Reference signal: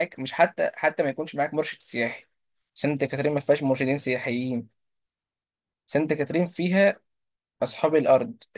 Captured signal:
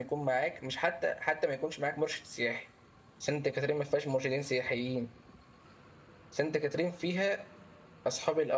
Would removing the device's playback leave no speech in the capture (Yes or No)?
Yes